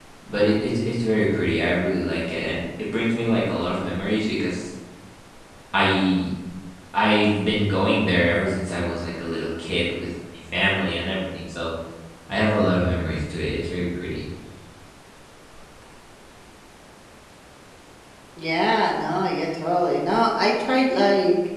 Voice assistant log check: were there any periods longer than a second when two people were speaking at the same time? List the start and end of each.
none

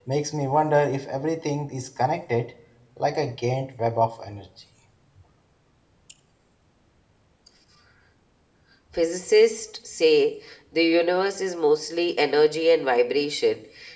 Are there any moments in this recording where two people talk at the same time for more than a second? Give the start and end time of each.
none

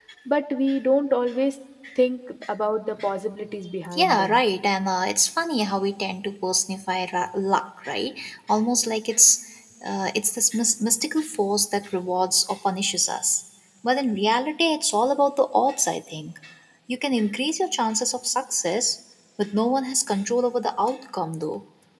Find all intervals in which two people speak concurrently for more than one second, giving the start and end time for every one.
none

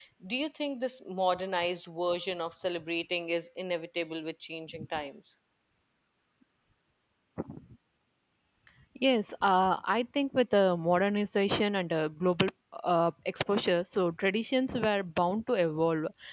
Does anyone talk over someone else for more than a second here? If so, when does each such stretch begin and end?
none

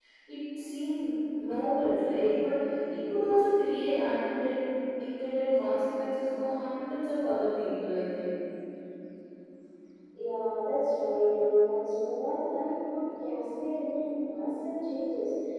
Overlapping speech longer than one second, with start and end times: none

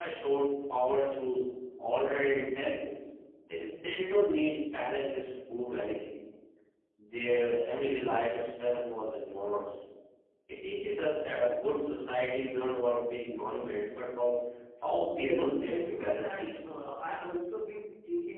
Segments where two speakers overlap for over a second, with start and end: 15.2-16.8

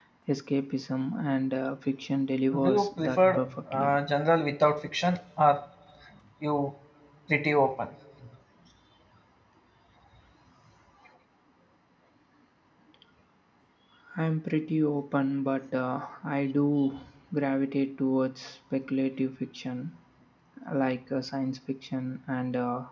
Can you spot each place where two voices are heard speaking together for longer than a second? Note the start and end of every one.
2.6-4.0

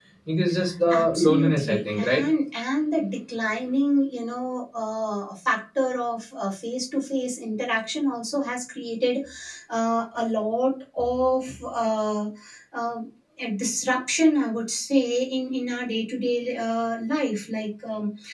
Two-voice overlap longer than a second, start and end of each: 0.9-2.2

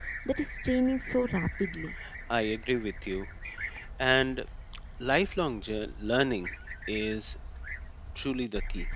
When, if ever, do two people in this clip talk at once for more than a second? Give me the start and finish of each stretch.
none

